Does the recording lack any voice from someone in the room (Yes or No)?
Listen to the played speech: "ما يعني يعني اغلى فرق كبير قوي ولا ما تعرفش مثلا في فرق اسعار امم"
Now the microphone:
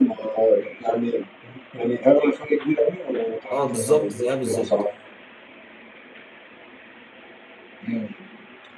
No